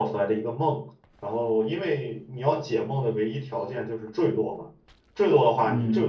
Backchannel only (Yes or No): Yes